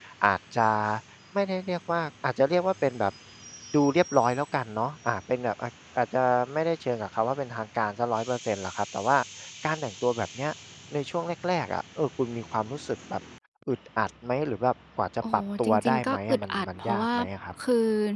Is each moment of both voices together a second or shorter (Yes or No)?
No